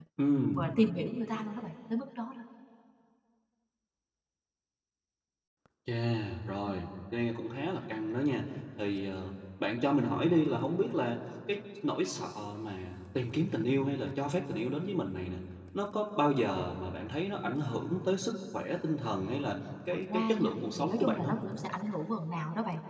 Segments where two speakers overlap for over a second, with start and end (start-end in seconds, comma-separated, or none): 20.1-21.4